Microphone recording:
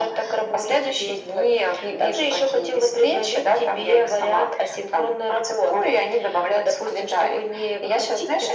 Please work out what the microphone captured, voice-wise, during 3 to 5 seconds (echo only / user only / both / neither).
echo only